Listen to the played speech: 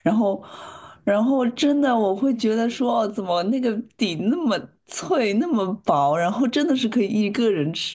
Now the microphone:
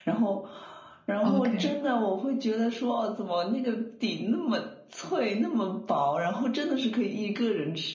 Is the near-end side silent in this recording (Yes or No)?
No